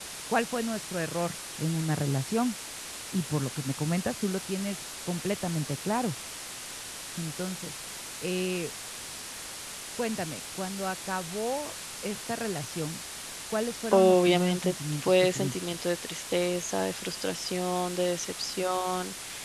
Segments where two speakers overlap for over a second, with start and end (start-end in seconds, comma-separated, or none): 13.9-15.8